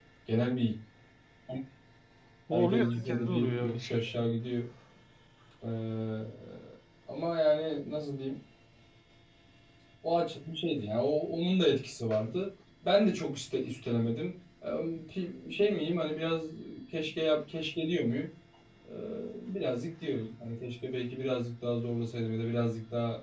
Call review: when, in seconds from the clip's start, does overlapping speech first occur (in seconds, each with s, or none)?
2.5 s